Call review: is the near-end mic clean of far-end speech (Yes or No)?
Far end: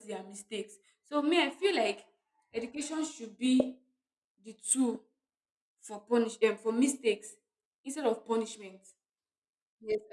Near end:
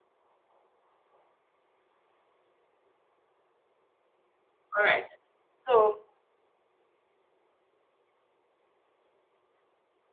Yes